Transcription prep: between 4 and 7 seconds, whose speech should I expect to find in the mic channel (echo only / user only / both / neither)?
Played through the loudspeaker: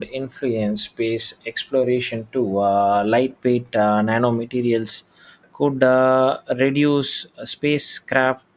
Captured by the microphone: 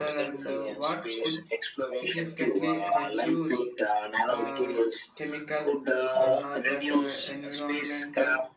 both